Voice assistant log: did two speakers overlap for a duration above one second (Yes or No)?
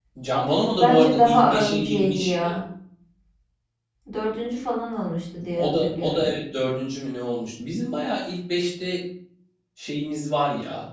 Yes